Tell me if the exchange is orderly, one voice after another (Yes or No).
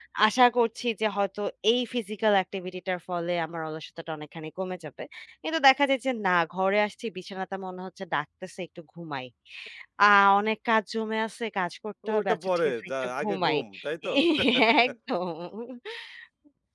No